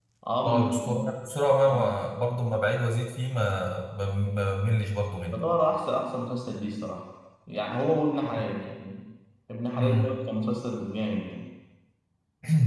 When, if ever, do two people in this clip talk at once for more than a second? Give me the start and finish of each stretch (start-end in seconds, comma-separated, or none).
none